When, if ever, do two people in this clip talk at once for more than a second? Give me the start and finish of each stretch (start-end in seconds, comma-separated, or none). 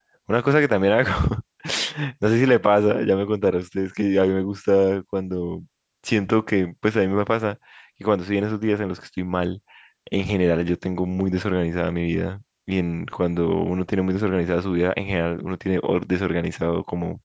none